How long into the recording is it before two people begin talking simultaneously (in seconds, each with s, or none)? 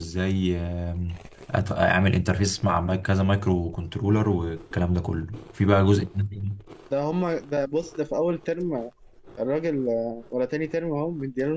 none